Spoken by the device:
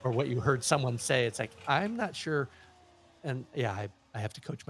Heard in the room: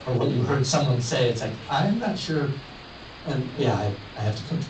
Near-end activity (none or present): none